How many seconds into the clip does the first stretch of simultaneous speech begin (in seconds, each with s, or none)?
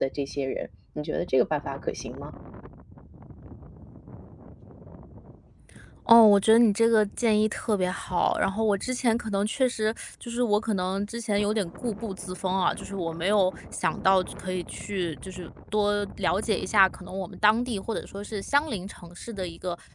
none